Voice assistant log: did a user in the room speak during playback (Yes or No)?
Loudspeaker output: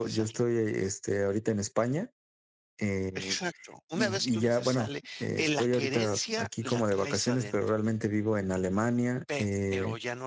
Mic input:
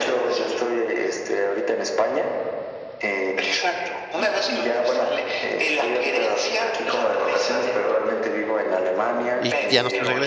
Yes